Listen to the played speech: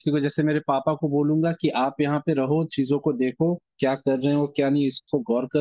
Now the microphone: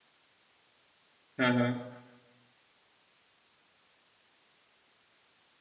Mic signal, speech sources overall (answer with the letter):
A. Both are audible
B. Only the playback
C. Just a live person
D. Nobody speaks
C